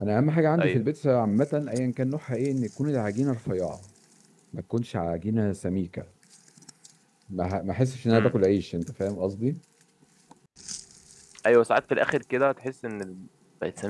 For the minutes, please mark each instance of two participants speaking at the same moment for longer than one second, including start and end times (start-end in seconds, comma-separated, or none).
none